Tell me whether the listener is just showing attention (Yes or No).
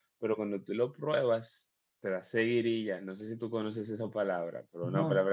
Yes